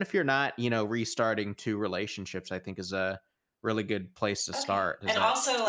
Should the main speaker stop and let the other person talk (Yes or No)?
Yes